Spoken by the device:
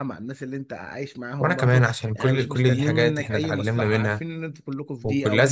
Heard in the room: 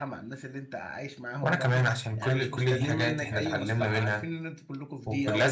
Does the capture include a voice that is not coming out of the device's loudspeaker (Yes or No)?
No